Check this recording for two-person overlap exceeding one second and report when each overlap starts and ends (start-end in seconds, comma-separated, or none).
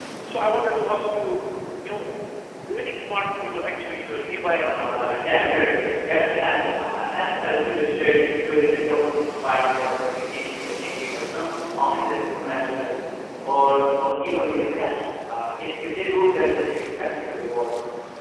4.5-5.8